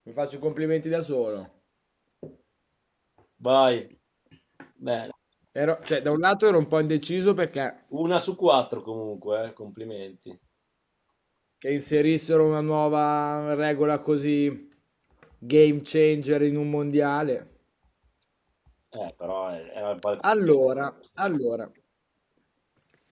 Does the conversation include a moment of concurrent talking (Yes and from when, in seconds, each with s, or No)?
No